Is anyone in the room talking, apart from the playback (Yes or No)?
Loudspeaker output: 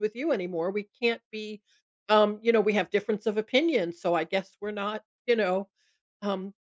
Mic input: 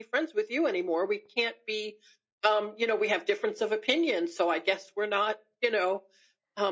No